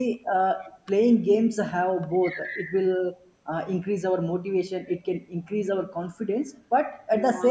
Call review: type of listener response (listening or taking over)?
listening